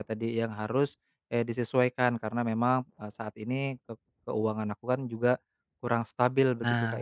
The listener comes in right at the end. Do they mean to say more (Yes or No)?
Yes